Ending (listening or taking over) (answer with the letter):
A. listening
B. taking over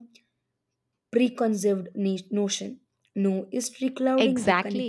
B